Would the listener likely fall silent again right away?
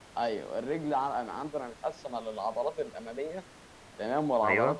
Yes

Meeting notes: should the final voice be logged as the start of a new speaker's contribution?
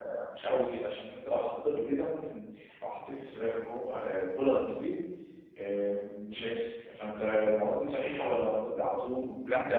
Yes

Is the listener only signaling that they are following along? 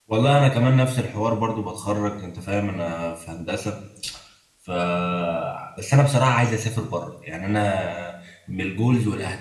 No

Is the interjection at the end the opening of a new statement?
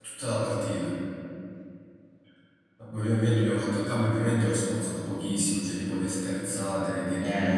No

